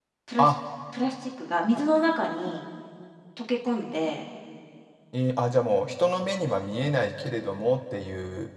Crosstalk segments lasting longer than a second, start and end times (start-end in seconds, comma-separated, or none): none